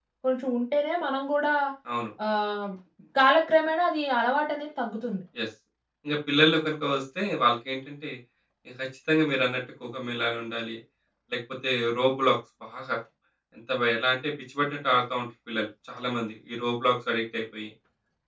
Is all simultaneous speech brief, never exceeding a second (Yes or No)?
Yes